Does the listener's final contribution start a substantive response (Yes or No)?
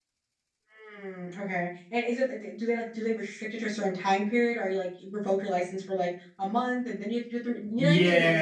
Yes